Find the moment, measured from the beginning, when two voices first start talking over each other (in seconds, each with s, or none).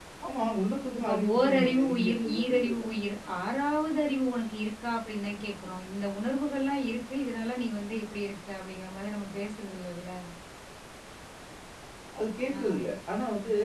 1.0 s